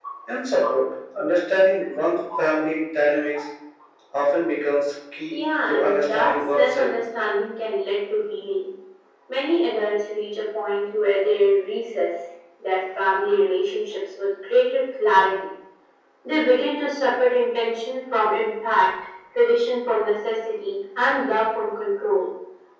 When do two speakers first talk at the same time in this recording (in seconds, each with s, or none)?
5.3 s